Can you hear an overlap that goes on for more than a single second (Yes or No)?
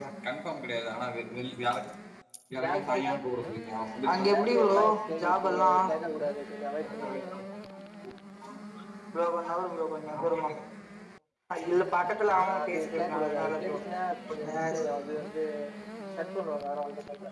Yes